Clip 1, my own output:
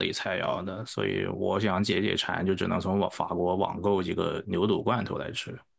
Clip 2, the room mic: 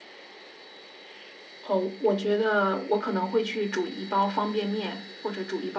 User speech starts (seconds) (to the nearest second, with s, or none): 2 s